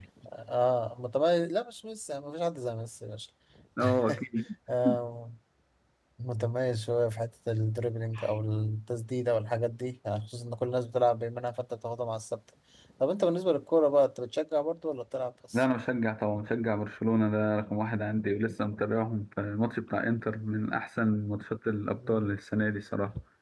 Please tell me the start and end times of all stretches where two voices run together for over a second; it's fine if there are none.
none

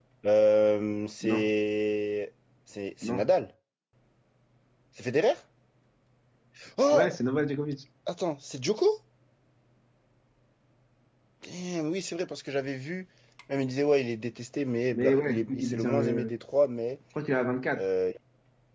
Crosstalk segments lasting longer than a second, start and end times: 14.9-16.3

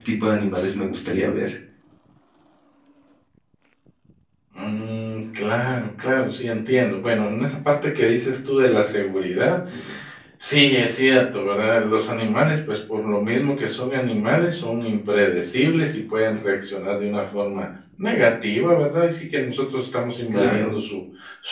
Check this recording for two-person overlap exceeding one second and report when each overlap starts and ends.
none

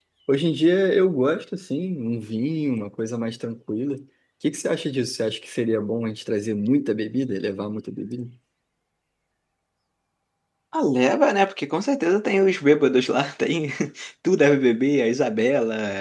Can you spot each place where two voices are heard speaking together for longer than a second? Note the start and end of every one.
none

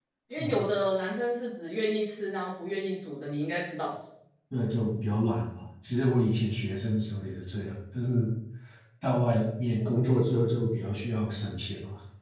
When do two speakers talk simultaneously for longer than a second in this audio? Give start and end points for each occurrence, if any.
none

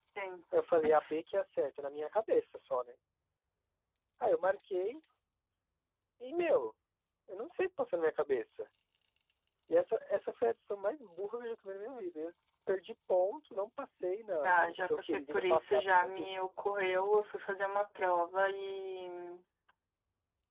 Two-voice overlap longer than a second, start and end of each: 14.4-16.4

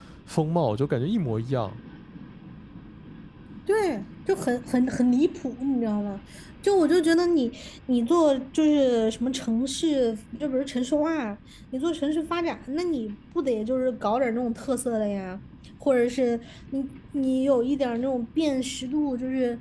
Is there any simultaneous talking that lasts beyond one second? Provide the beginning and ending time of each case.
none

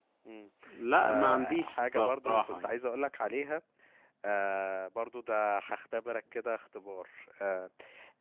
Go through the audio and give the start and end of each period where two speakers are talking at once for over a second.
1.0-2.8

